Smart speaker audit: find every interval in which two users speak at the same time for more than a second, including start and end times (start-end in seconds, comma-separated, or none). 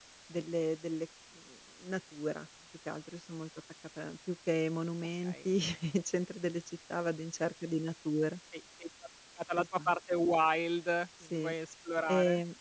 none